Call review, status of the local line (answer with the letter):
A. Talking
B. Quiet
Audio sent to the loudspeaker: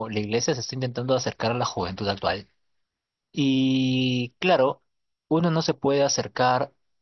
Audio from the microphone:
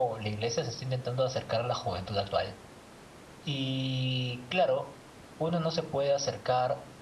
B